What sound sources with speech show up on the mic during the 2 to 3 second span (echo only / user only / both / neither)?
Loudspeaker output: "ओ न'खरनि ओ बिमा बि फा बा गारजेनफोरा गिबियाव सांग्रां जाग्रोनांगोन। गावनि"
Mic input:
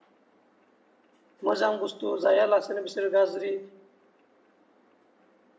user only